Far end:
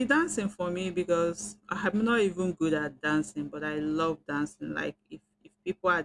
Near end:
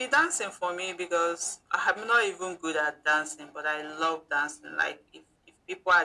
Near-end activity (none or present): none